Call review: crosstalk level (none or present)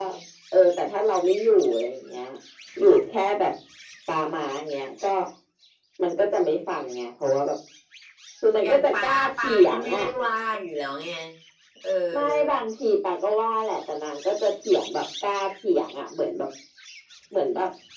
present